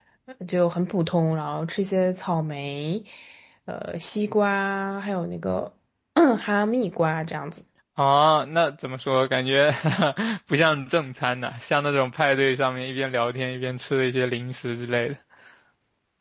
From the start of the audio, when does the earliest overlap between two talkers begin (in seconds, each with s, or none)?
none